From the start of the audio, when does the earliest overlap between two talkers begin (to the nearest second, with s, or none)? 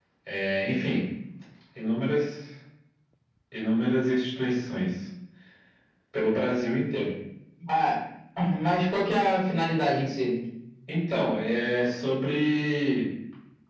none